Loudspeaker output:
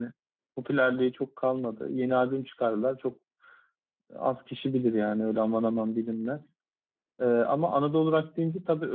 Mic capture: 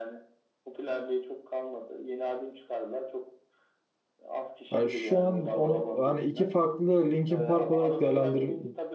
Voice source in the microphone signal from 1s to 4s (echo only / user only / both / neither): echo only